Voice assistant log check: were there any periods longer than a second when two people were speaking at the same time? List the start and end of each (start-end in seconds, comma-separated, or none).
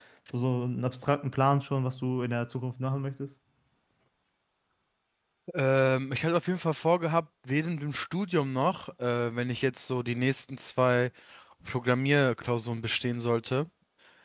none